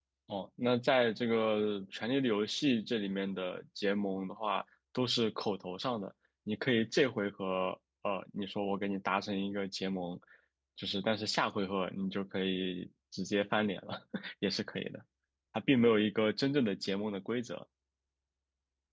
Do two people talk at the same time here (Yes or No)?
No